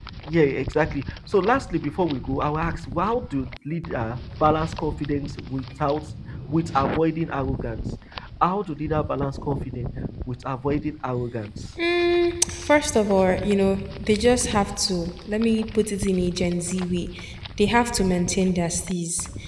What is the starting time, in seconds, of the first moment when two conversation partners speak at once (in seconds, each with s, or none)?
none